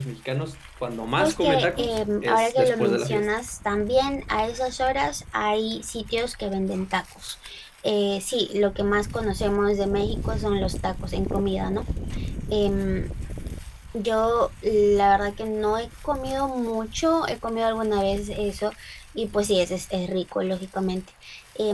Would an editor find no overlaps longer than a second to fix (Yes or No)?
No